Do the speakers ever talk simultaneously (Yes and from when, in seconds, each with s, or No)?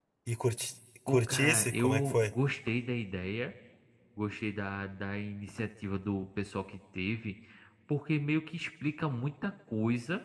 Yes, from 1.1 s